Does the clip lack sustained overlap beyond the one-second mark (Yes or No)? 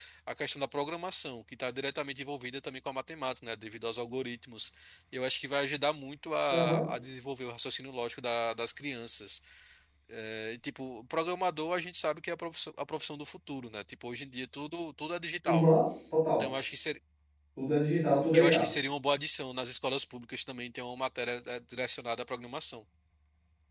Yes